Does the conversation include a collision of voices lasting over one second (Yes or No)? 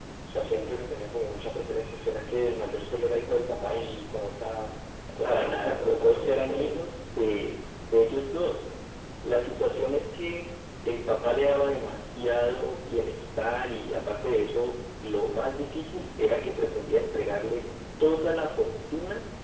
Yes